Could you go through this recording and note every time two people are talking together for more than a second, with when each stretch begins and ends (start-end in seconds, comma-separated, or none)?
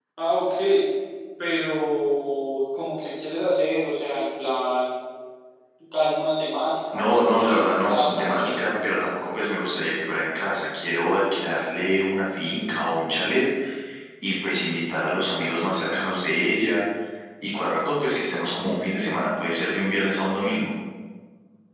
6.9-8.5